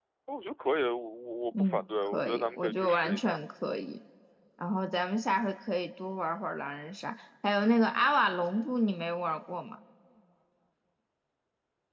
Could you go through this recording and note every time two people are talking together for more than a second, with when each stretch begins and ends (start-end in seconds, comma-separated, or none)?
1.6-3.4